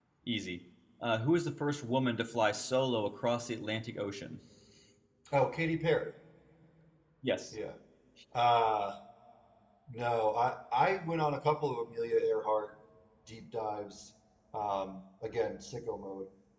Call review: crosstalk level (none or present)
none